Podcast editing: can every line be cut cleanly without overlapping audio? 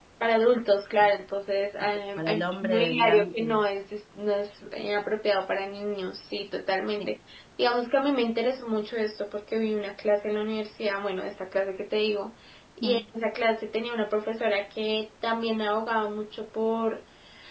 No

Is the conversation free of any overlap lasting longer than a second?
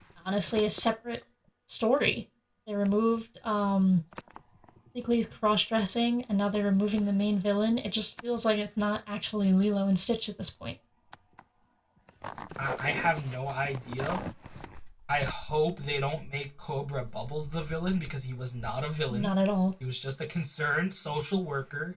Yes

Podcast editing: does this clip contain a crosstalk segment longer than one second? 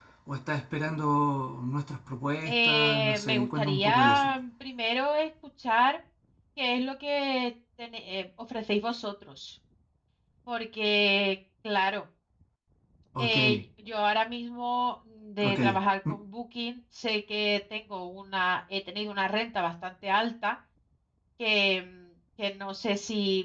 Yes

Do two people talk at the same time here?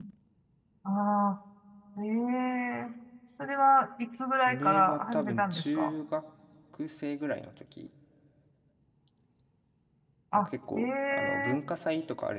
Yes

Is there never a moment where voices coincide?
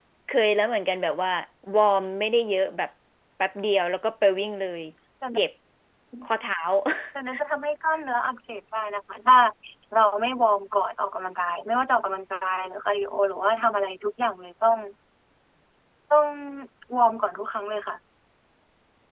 Yes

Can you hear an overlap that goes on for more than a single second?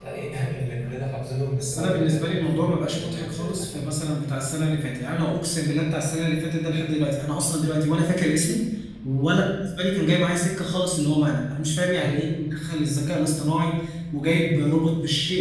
Yes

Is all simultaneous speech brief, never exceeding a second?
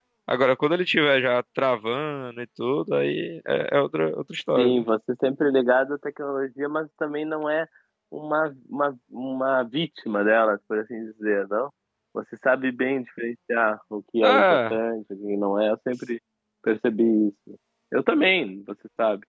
Yes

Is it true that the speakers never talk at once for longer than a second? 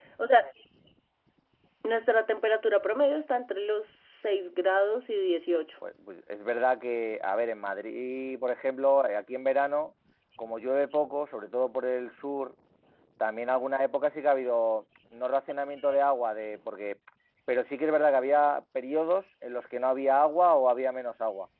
Yes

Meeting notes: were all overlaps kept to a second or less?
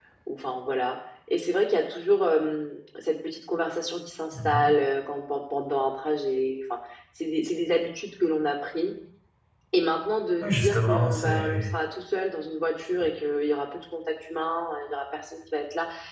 No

